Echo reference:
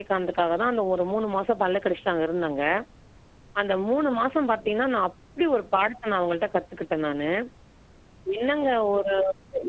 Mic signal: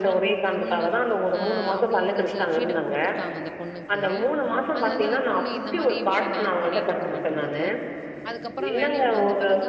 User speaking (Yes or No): Yes